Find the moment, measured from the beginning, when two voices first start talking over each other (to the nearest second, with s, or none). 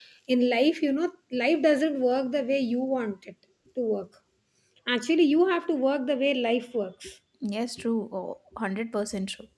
none